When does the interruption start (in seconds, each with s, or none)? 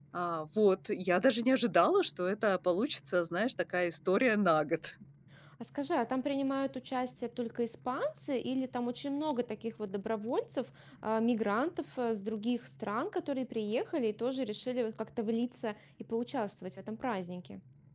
none